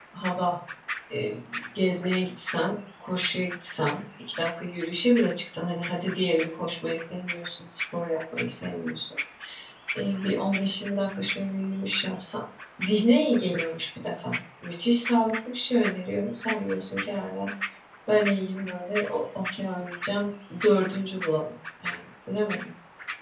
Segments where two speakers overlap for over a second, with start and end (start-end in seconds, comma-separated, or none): none